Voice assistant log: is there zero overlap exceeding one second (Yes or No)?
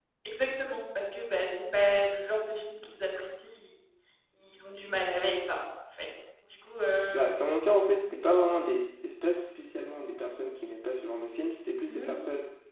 Yes